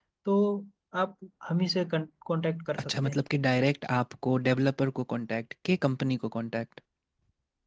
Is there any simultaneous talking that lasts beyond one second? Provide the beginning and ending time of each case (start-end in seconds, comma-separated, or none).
none